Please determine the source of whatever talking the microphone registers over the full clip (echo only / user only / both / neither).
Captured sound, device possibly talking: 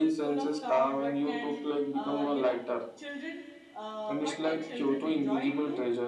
both